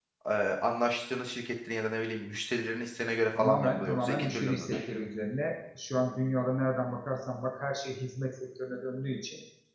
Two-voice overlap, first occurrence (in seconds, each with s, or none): 3.3 s